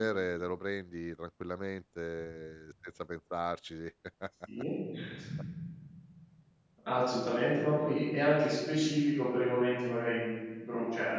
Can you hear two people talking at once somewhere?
No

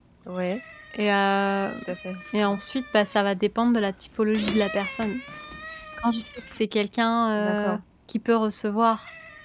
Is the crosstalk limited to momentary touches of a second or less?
Yes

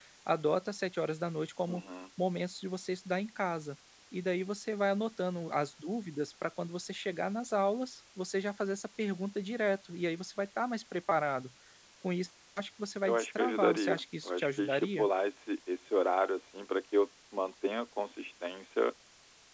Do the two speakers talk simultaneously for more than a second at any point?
Yes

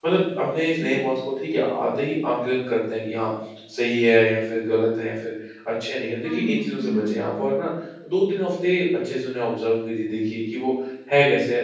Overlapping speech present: Yes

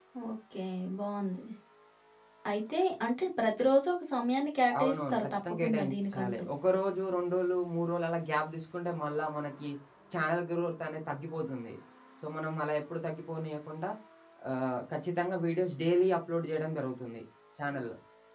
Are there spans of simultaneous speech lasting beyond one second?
Yes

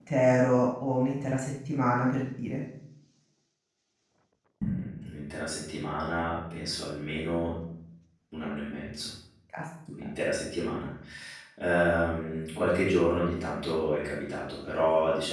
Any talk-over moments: No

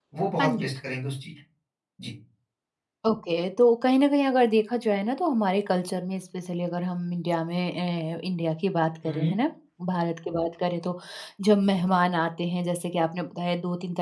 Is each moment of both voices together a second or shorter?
Yes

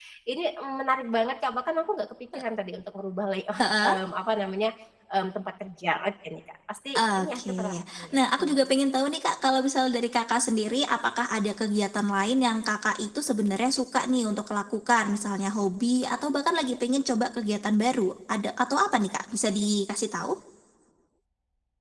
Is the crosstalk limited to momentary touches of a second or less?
No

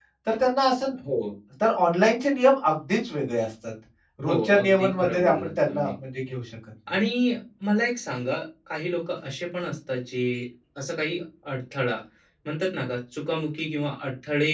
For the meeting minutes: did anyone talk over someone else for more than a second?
Yes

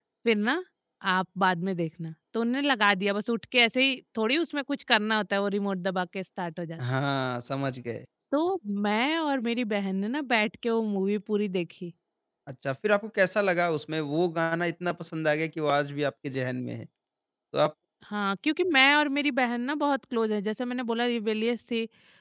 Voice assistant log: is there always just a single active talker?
Yes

